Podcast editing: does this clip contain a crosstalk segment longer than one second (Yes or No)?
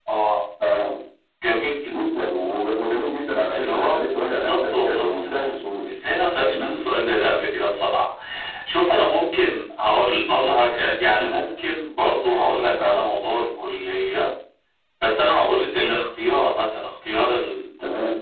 Yes